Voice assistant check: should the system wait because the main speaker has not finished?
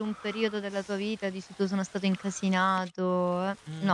No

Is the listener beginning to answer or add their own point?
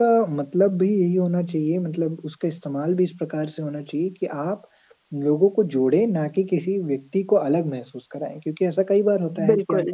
No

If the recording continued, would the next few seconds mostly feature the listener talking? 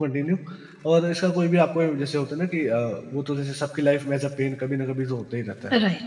No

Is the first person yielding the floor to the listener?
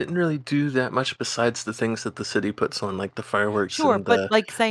Yes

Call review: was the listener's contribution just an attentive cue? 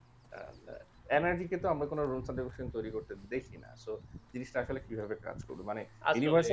Yes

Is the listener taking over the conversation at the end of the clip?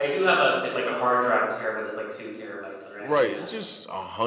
Yes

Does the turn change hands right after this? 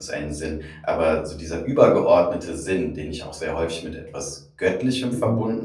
No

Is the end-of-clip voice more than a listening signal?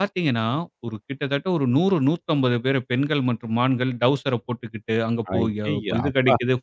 No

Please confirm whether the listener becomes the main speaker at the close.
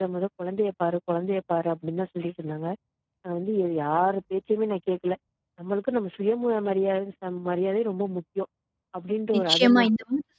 Yes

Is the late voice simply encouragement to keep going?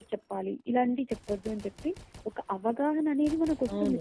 No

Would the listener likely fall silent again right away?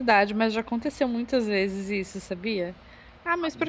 Yes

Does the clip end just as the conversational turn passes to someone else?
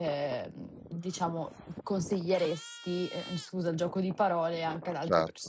Yes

